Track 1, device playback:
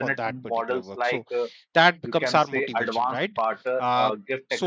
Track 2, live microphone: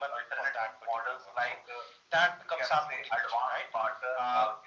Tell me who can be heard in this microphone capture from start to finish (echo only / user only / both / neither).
echo only